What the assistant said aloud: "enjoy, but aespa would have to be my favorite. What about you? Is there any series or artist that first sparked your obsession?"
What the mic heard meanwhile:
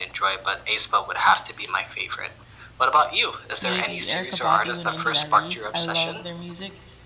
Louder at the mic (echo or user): echo